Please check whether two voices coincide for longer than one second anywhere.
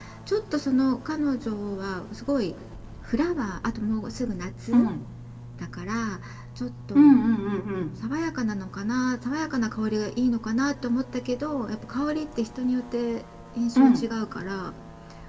No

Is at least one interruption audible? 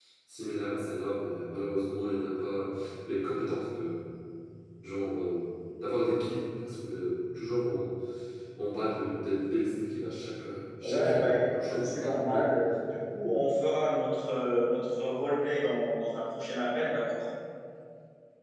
Yes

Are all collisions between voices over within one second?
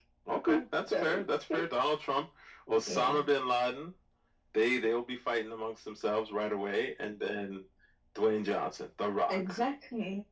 Yes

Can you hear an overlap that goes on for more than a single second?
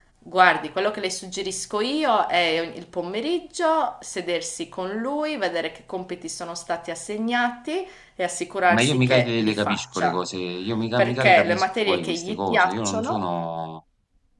Yes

